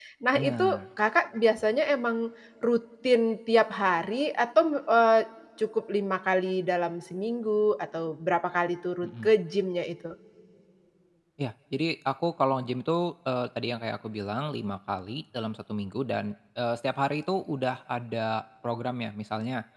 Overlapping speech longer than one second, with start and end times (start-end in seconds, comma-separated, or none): none